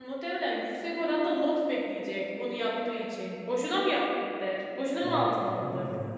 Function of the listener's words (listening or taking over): taking over